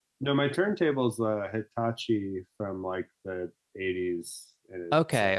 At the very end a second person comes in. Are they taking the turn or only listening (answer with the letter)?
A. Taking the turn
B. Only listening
A